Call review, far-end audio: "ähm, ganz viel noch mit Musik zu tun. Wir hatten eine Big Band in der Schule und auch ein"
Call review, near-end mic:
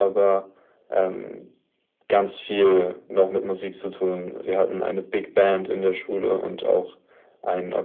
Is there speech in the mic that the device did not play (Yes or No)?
No